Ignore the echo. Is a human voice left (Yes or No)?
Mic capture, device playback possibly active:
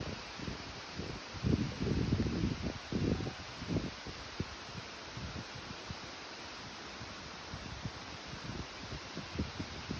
No